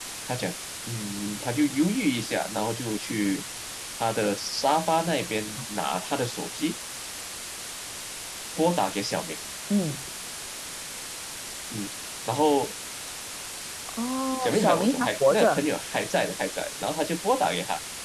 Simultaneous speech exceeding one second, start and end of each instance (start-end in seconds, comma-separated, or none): 14.4-15.7